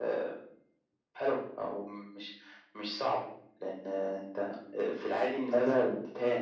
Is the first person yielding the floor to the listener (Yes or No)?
No